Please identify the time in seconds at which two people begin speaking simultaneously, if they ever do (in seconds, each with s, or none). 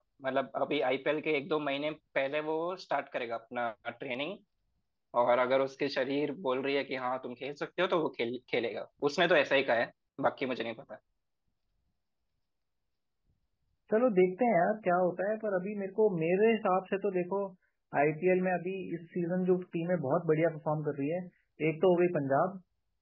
none